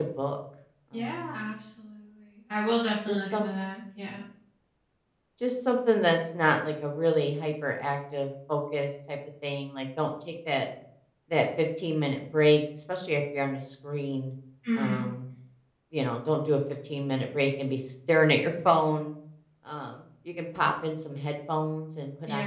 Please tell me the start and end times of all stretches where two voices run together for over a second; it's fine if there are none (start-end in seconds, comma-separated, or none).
none